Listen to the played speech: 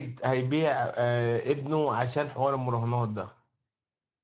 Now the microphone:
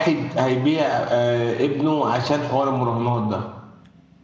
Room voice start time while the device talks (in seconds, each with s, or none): none